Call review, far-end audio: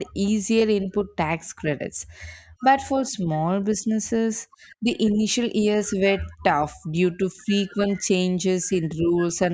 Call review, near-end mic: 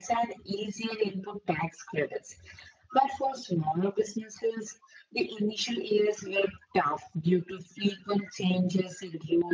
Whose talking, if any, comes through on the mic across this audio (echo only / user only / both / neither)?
echo only